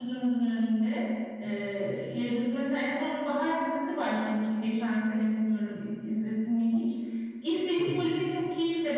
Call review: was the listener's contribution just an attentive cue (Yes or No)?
Yes